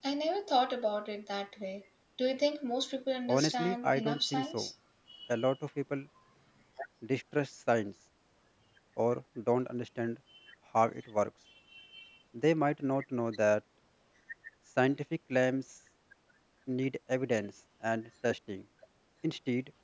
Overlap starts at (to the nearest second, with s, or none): 3 s